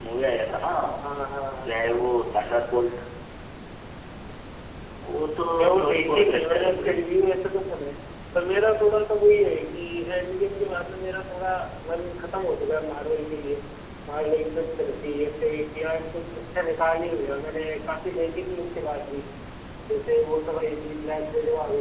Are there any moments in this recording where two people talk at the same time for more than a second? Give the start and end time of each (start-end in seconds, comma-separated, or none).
5.6-7.0